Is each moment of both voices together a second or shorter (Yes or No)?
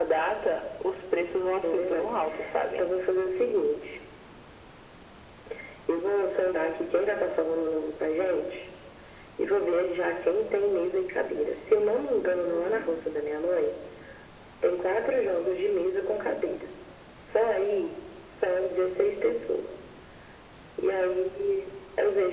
Yes